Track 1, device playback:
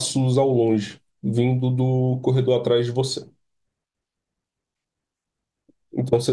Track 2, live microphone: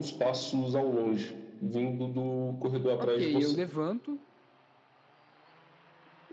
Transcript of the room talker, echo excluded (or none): Ok, eu levanto,